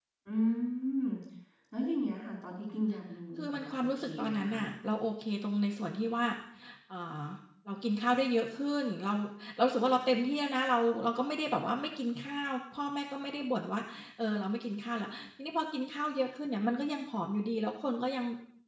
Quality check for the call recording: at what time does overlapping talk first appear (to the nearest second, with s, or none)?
3 s